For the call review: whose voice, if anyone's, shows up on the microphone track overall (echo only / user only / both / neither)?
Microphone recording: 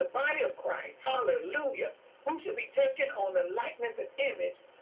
echo only